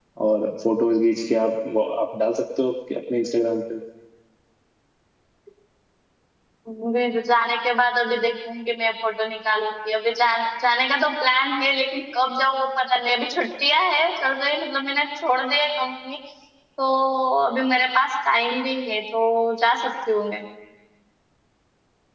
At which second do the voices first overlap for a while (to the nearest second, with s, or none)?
none